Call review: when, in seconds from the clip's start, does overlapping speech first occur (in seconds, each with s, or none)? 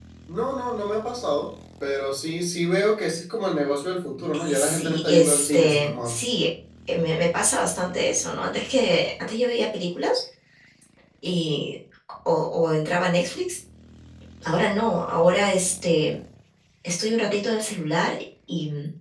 4.3 s